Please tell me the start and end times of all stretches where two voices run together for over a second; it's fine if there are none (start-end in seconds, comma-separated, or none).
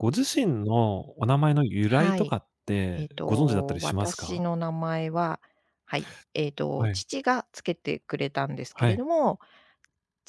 3.0-4.4